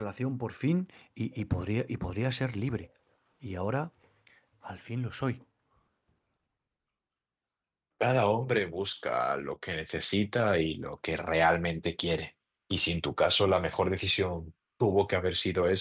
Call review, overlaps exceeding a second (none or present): none